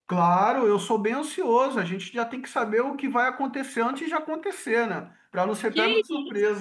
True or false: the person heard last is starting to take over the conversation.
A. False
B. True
B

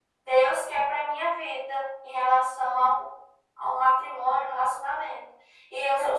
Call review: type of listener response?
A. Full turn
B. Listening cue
B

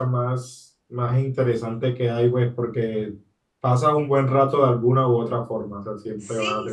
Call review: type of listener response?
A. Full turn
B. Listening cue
A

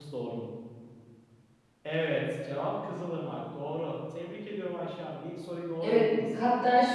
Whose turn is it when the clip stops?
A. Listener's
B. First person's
A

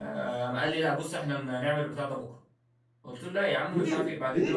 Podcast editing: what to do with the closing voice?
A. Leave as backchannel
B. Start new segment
A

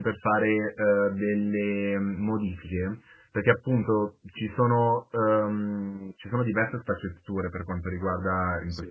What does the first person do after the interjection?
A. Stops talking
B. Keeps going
B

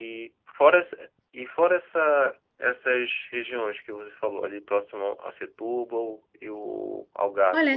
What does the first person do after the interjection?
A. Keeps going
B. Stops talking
B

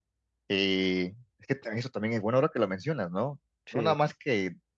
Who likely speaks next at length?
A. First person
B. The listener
A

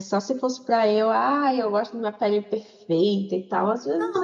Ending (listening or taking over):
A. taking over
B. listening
A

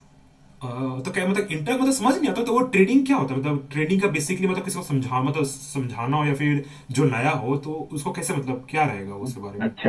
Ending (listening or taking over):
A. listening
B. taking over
B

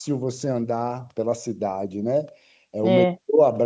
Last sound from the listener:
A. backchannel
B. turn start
A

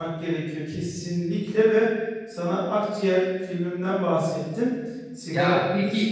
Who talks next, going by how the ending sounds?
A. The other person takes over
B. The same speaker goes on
B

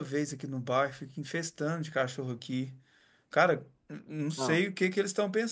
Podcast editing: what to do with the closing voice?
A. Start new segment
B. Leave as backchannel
B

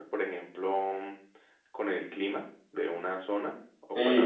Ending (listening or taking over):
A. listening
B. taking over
B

